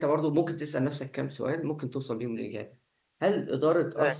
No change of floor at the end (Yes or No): Yes